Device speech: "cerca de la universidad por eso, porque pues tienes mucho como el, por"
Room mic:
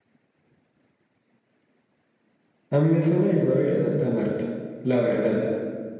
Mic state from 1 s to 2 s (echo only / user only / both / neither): neither